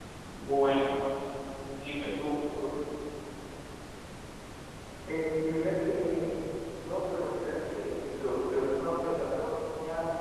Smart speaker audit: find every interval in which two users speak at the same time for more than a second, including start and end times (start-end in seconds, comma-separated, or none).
none